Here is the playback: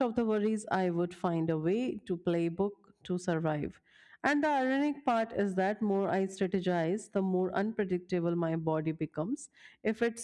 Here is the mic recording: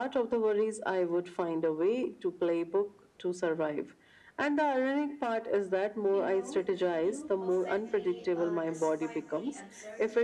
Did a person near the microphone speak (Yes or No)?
Yes